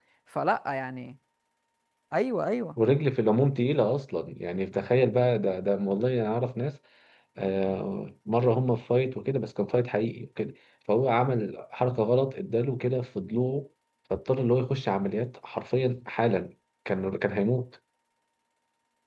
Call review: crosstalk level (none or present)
none